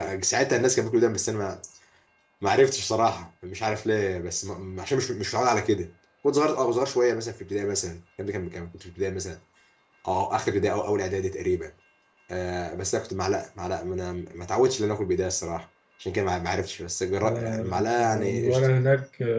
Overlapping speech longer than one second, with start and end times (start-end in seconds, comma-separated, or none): 17.2-18.5